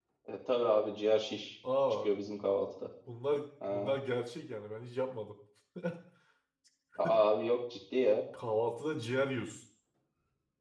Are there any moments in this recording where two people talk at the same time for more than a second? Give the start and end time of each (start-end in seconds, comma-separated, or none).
none